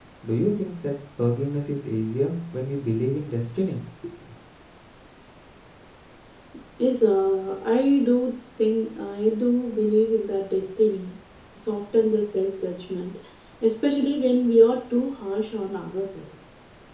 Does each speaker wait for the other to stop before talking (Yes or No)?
Yes